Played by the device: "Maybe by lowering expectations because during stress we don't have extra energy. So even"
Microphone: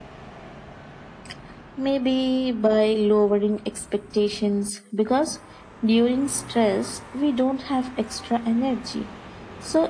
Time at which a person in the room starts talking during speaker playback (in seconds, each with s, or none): none